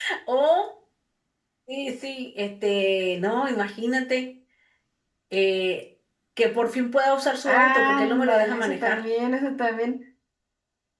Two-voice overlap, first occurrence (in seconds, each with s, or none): 7.4 s